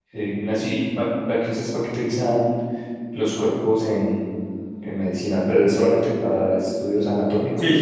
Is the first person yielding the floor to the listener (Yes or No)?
Yes